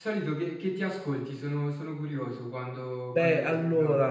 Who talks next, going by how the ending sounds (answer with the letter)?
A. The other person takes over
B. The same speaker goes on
A